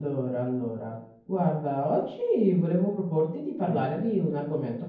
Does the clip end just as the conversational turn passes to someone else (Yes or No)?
No